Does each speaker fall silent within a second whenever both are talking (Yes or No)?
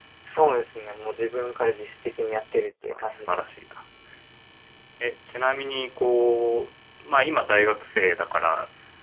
Yes